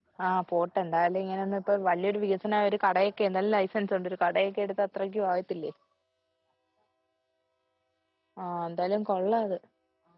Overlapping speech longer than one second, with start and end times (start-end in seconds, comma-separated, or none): none